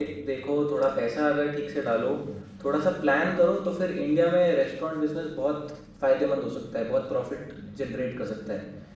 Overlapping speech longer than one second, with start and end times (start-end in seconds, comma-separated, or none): none